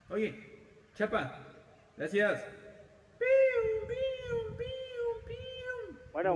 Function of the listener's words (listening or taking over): taking over